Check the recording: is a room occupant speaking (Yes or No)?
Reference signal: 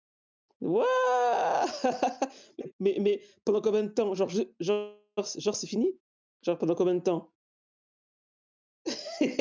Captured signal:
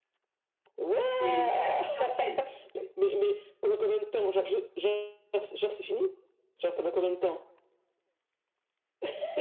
Yes